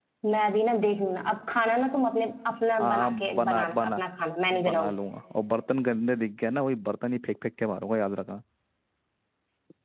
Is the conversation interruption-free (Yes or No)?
No